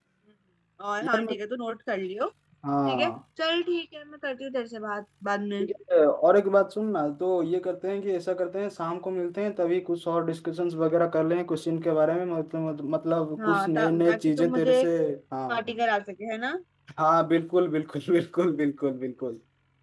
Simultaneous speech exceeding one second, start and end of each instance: 13.4-14.8

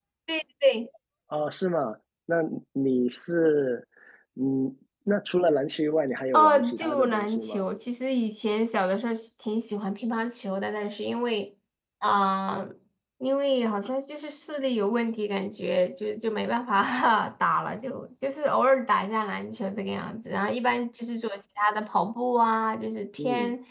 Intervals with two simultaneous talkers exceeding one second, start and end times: 6.3-7.6

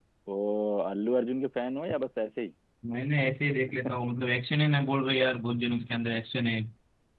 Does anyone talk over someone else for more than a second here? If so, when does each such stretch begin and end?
none

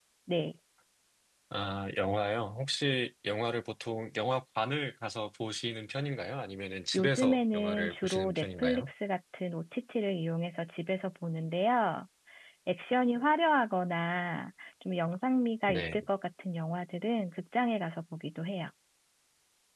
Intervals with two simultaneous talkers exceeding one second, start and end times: 7.0-8.9

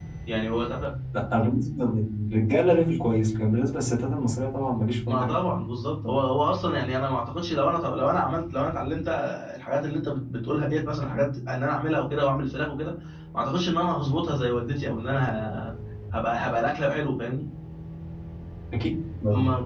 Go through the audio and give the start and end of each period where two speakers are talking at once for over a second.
none

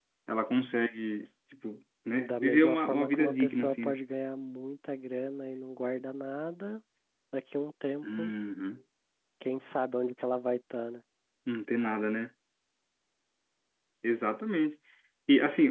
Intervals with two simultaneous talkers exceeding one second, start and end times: 2.2-4.0

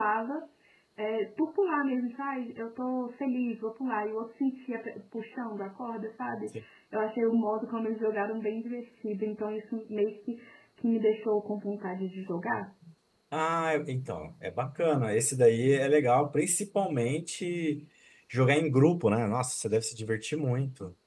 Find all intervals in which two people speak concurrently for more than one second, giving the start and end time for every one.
none

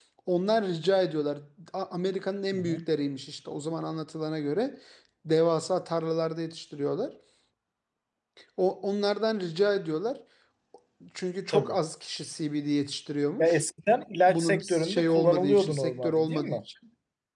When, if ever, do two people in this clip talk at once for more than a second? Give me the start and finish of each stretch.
14.2-16.6

